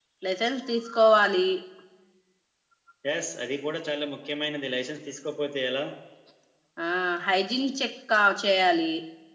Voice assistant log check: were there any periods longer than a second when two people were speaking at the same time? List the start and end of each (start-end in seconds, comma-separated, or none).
none